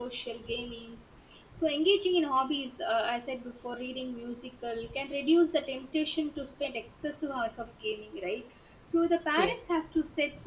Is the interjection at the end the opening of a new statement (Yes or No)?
No